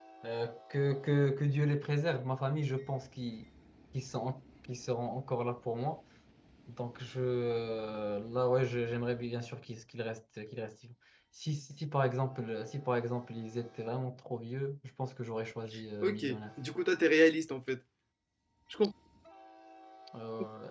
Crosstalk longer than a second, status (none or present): none